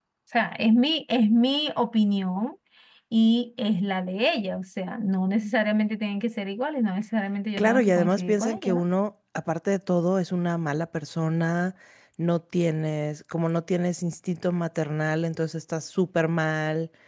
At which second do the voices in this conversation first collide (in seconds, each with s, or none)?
7.6 s